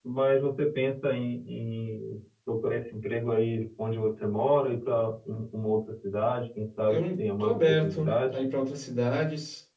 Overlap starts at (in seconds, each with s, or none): 6.9 s